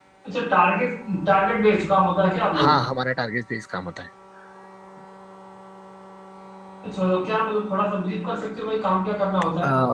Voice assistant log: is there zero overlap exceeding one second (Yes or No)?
Yes